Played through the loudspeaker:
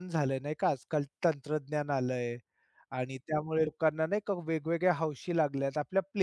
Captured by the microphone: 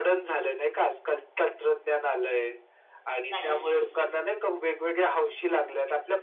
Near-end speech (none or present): present